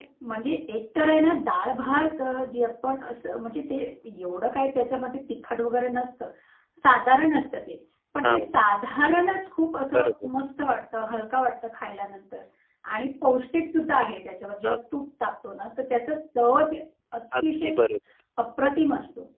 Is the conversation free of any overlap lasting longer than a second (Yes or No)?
Yes